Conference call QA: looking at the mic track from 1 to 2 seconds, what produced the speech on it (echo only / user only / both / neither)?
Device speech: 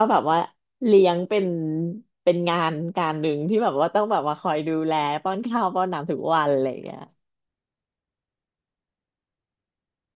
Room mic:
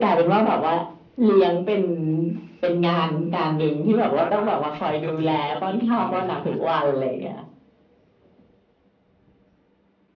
echo only